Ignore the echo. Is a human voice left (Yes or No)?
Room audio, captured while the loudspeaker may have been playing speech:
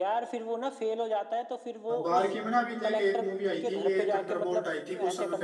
Yes